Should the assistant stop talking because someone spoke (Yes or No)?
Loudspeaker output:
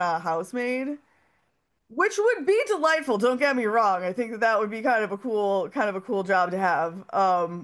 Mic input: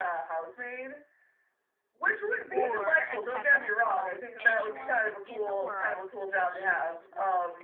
Yes